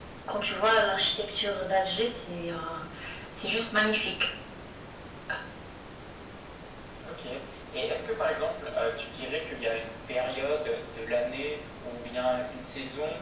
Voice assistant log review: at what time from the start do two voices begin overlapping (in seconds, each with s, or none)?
none